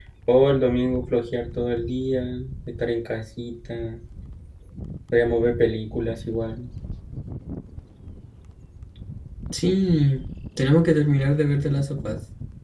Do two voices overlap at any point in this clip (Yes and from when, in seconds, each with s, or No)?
No